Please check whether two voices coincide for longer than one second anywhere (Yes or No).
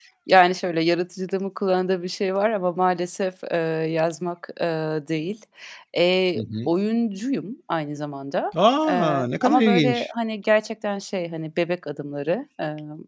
Yes